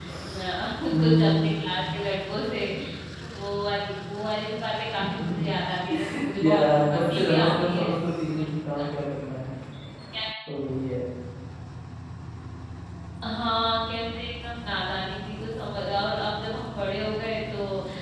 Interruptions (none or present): present